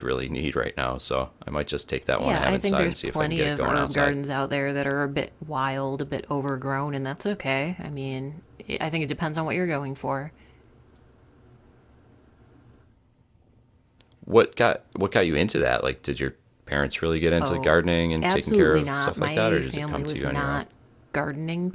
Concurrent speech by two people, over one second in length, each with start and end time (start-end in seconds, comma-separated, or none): 2.2-4.1, 18.2-20.6